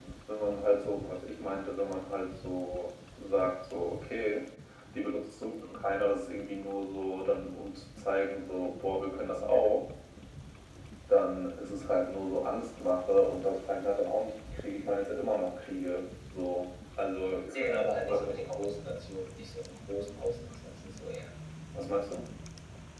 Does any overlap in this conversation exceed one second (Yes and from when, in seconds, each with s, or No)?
No